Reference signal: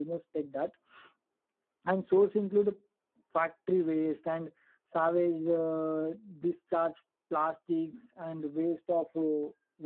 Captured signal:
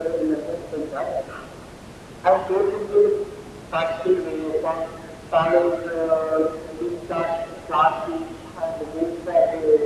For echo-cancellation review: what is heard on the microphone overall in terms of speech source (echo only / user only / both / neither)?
echo only